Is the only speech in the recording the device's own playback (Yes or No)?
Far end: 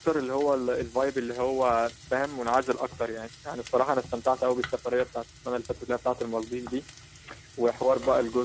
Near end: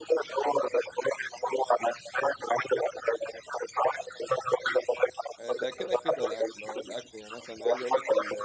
No